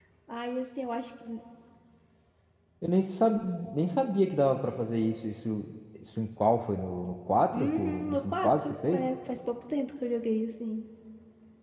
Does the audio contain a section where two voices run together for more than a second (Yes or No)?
Yes